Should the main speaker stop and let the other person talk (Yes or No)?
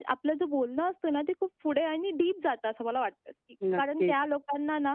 No